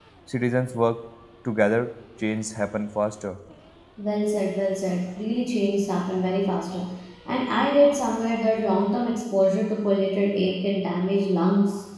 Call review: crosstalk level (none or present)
none